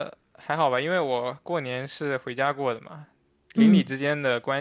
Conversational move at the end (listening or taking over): listening